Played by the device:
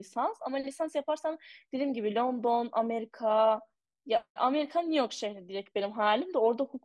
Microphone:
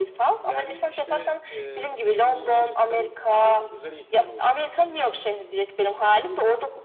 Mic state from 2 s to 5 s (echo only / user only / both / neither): both